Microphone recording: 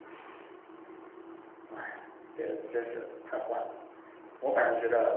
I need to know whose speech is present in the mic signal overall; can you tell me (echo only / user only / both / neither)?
user only